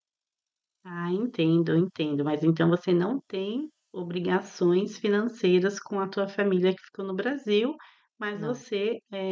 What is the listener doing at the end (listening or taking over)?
listening